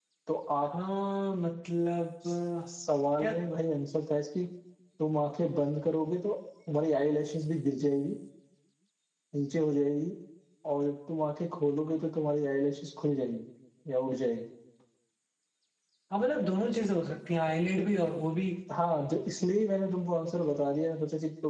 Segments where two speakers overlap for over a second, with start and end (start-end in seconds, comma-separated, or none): none